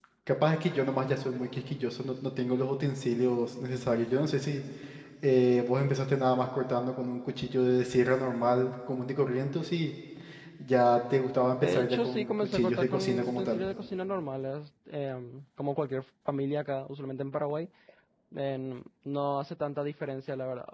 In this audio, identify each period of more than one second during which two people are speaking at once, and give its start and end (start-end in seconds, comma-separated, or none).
11.6-13.6